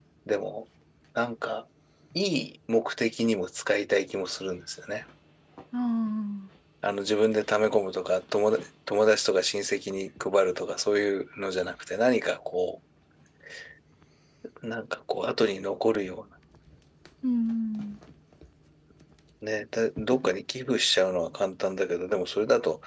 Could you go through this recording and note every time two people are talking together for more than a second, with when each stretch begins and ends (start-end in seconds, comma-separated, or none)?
none